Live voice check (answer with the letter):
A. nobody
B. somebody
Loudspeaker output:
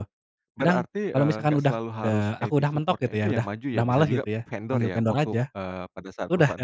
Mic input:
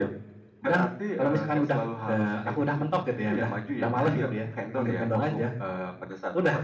A